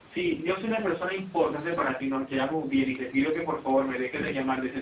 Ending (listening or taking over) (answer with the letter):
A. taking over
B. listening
B